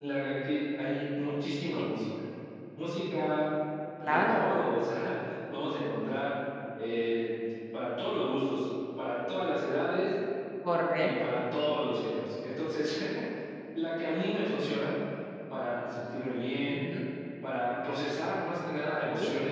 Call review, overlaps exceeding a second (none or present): none